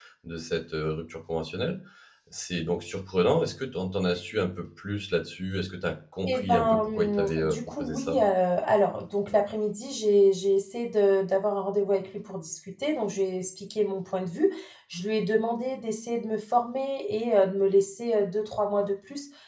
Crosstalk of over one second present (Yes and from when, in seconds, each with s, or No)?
Yes, from 6.2 s